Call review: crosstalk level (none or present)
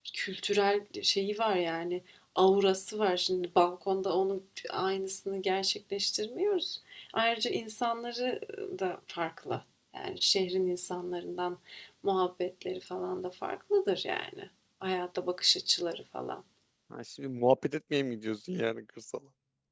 none